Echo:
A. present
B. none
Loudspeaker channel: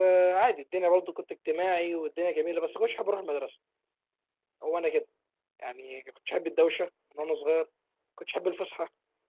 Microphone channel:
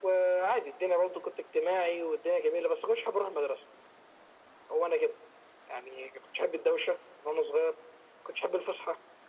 A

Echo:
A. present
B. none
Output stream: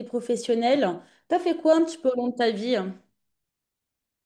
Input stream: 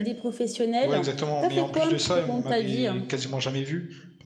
A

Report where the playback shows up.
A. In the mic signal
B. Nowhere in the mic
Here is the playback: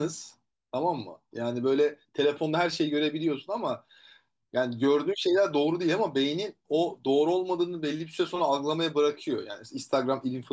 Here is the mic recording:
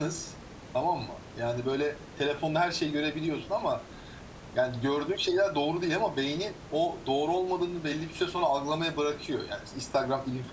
A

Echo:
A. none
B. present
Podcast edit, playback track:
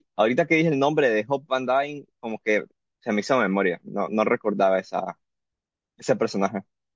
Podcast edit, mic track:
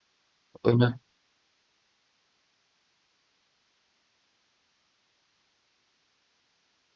A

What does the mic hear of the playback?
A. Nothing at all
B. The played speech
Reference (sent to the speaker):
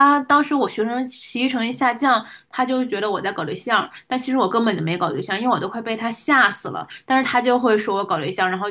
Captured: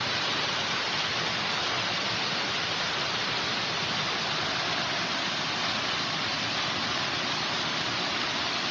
A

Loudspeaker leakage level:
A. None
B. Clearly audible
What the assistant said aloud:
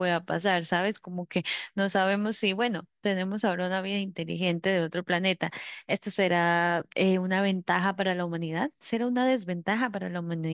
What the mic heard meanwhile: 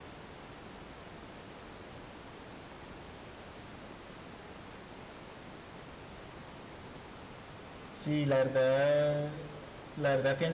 A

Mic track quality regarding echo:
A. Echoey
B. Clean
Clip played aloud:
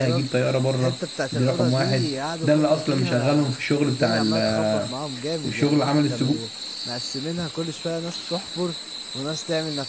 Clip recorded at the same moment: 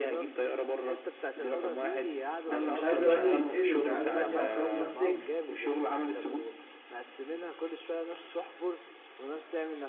A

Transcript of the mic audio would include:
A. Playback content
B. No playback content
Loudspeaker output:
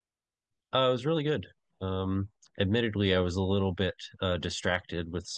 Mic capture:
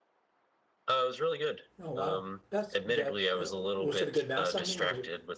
A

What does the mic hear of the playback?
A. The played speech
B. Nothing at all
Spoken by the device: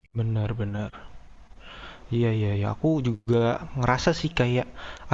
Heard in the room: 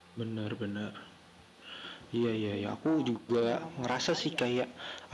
A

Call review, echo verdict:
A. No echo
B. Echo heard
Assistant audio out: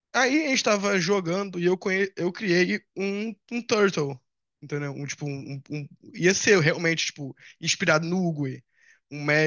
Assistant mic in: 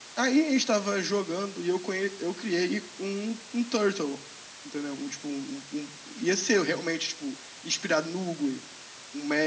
B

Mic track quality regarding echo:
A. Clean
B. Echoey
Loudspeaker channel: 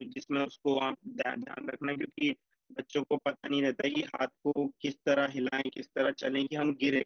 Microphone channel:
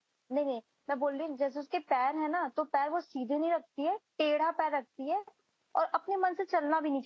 A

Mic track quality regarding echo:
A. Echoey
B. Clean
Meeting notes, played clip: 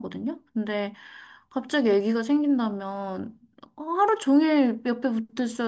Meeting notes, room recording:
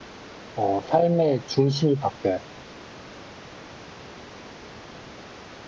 B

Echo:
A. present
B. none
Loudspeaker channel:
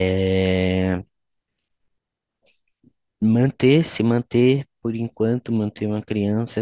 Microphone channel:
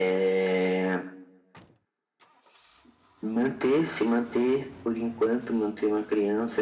A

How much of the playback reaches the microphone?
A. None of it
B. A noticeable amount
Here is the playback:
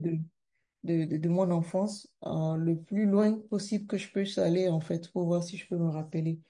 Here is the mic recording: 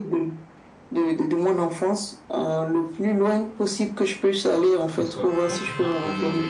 B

